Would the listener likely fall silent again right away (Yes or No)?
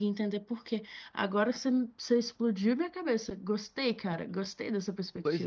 No